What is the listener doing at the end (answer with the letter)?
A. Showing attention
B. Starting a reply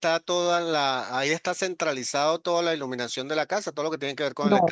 B